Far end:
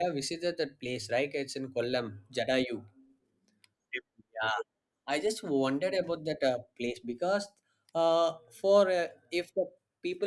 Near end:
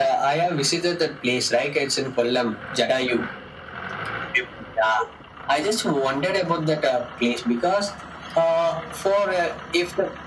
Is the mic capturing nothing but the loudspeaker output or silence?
Yes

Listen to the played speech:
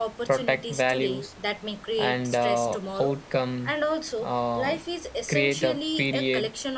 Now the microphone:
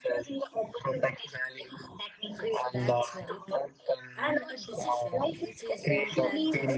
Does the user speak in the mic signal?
Yes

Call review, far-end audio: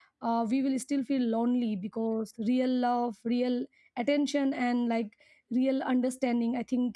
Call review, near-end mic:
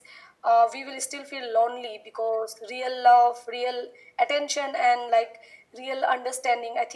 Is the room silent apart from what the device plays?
Yes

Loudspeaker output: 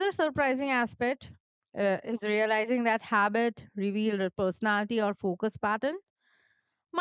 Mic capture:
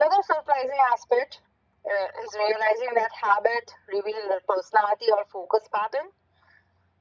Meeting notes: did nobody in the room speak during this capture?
Yes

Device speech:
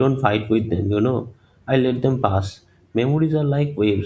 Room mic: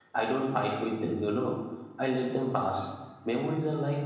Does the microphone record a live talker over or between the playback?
No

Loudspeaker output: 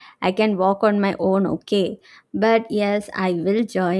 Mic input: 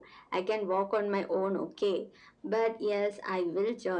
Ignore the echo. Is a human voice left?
No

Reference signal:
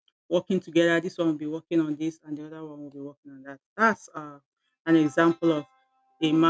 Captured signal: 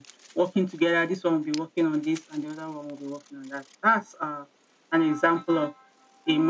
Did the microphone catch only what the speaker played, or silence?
Yes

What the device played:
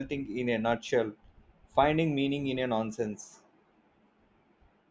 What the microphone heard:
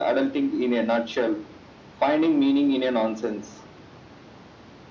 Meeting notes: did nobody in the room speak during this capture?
Yes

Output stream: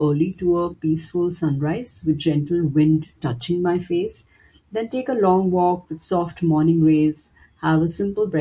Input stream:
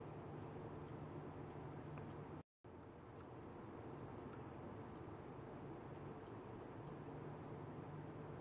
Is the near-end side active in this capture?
No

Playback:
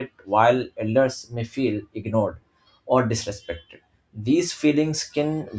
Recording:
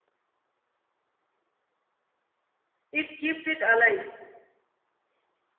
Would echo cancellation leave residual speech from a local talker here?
Yes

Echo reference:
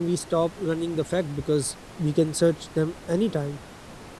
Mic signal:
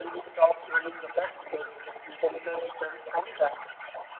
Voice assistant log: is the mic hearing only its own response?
Yes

